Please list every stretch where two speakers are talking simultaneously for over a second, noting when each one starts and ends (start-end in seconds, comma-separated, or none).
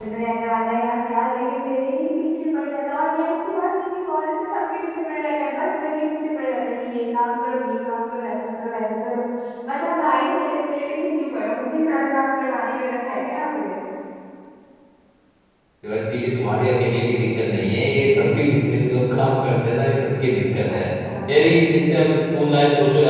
none